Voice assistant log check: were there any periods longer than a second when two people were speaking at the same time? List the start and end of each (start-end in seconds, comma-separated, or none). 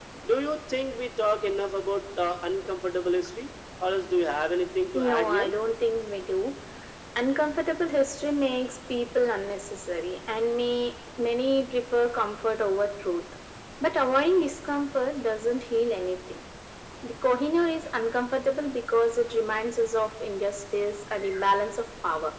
none